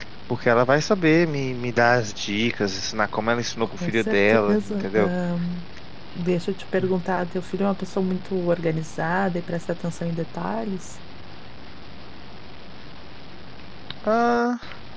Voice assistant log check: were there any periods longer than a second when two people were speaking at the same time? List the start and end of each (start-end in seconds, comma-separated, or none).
3.7-5.1